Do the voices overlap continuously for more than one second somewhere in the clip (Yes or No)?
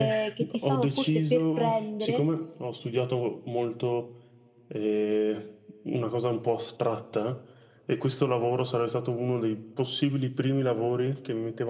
Yes